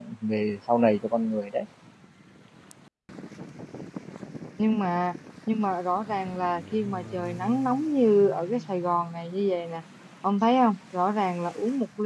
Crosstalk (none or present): none